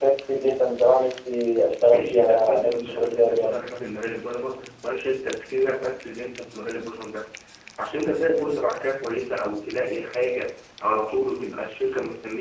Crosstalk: present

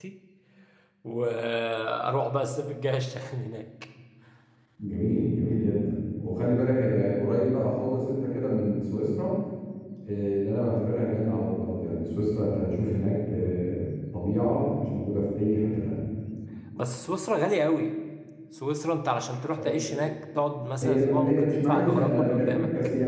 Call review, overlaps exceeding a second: present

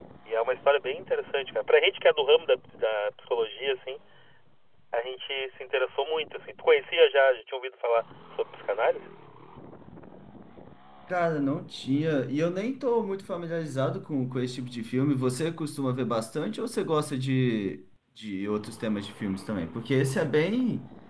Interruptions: none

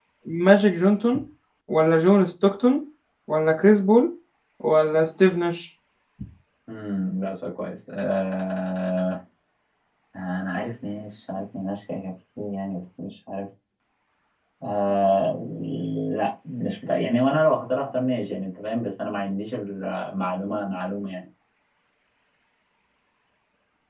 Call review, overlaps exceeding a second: none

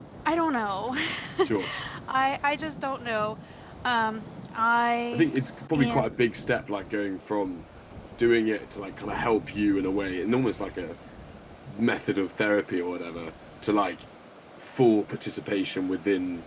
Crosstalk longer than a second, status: none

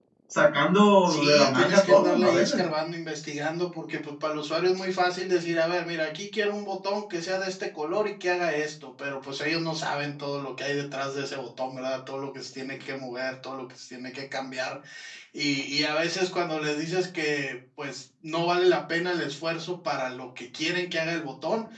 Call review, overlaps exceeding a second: present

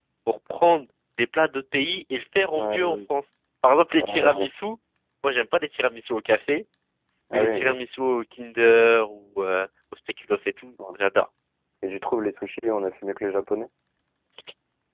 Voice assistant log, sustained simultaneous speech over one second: none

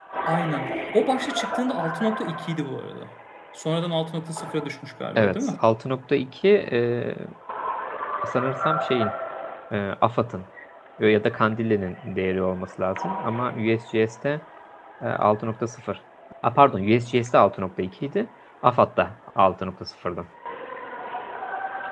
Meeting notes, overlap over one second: none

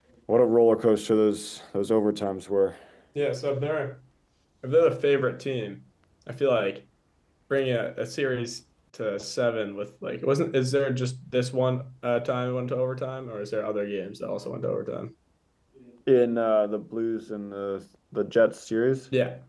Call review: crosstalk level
none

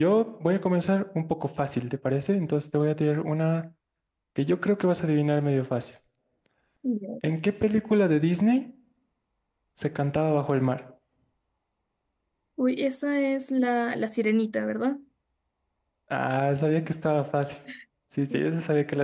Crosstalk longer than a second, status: none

